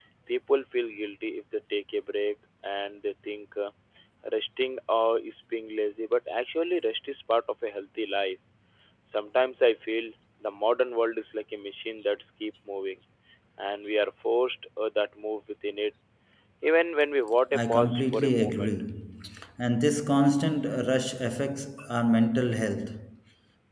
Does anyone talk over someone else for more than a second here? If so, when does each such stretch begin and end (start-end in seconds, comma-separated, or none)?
17.5-18.7